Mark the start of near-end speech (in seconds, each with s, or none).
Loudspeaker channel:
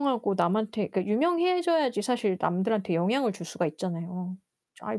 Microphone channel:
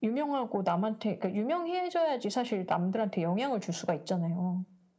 none